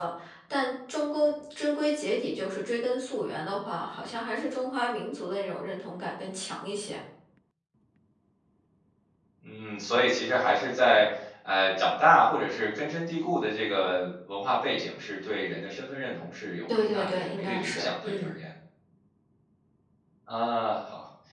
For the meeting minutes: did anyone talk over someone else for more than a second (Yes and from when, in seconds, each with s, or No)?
Yes, from 16.7 s